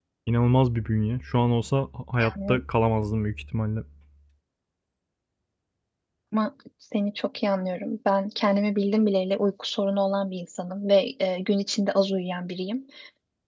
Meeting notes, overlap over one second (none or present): none